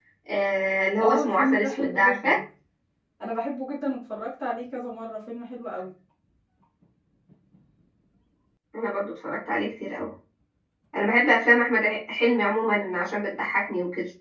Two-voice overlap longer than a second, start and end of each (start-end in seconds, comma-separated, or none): 1.0-2.4